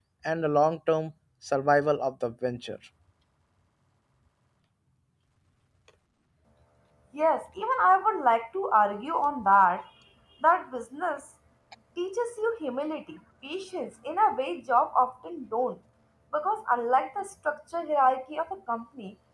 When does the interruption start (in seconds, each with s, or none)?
none